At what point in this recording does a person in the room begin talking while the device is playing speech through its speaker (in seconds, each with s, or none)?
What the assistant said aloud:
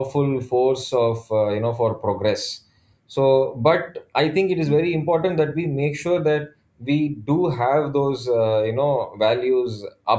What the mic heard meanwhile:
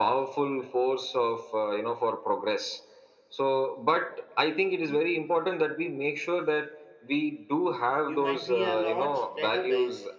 8.0 s